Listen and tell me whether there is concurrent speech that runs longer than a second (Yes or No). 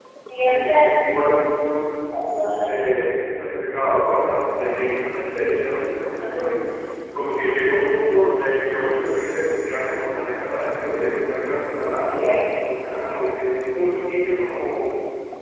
No